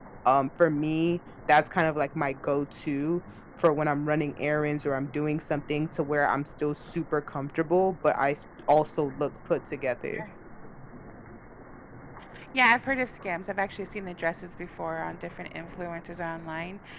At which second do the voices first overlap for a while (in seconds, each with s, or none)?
none